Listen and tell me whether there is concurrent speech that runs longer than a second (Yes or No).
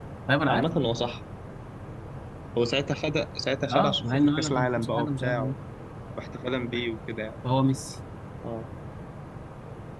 Yes